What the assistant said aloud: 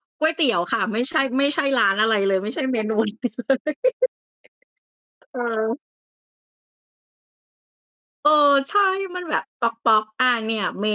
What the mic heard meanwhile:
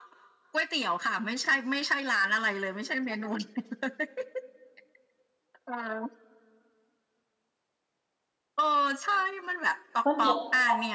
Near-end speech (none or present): present